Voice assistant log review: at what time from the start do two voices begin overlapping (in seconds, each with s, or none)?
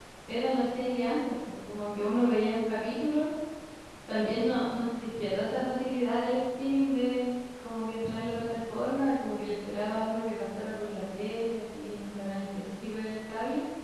none